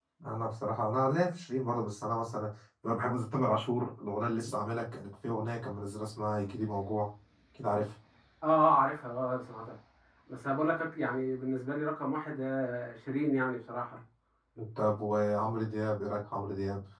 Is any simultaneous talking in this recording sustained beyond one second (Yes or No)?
No